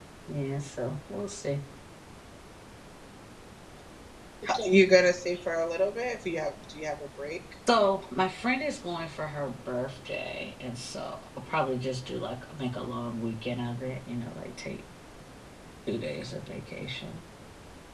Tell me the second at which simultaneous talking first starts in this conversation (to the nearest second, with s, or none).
none